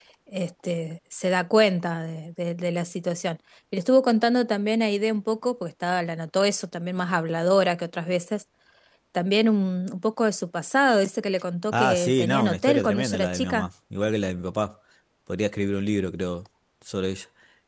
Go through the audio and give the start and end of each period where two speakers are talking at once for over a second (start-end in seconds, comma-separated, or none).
11.7-13.7